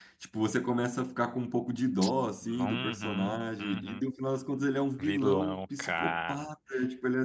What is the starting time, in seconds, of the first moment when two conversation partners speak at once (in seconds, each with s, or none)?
2.4 s